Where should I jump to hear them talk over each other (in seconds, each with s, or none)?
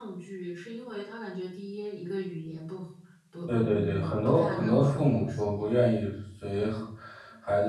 3.5 s